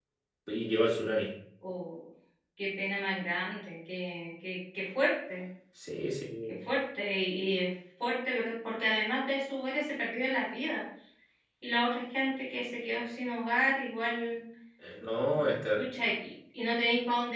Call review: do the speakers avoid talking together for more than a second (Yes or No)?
Yes